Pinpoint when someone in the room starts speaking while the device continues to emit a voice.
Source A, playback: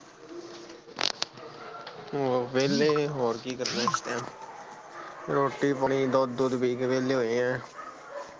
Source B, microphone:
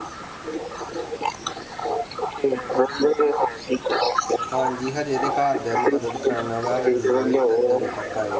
5 s

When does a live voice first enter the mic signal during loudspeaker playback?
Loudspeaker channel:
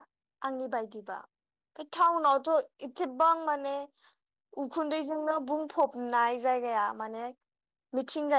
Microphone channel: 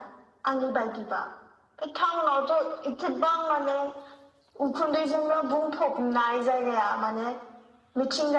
none

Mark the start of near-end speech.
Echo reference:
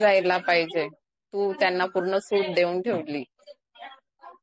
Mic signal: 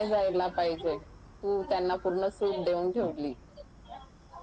none

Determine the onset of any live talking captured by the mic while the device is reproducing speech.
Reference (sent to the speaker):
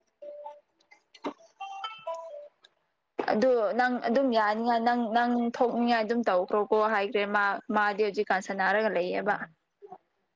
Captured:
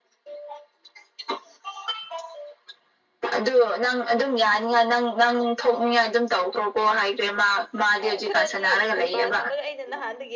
8 s

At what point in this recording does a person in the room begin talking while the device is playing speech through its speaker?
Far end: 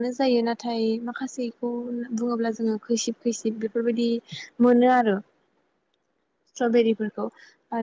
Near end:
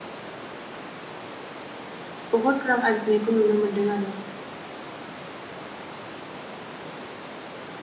2 s

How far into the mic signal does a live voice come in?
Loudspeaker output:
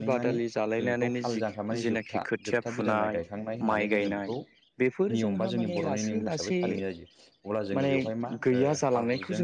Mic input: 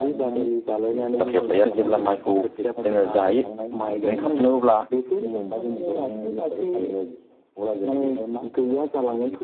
1 s

